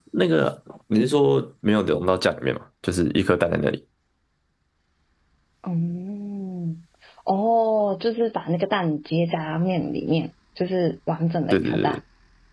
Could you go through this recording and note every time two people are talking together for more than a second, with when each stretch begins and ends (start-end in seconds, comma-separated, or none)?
none